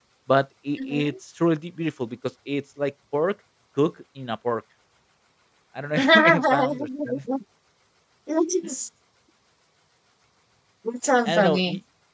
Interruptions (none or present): present